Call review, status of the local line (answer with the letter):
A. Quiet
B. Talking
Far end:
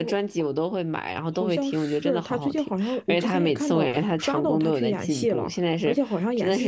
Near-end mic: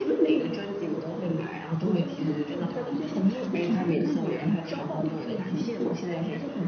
A